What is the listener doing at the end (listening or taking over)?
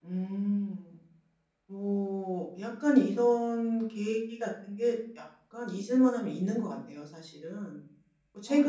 listening